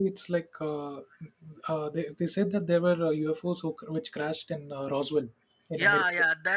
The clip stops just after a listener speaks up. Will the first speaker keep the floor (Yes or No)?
No